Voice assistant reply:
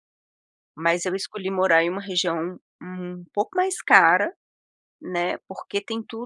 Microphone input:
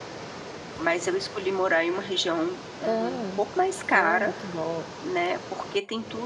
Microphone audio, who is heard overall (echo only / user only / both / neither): both